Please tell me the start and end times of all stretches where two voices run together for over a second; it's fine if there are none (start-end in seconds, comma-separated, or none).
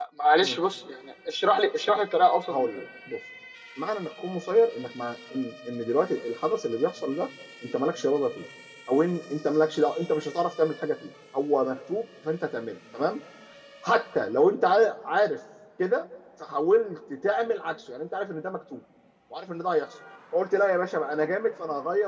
none